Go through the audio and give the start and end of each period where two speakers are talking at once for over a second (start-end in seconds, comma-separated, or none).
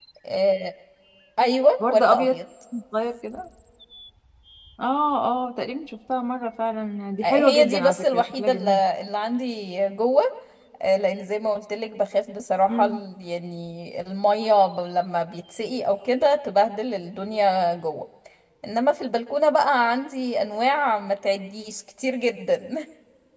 7.2-8.8